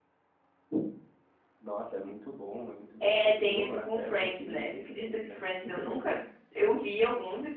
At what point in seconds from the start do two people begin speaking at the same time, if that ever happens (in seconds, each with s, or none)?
3.0 s